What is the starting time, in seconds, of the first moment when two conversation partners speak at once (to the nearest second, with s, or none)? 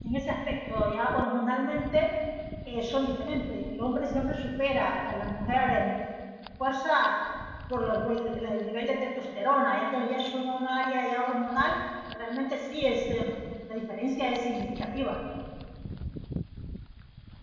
none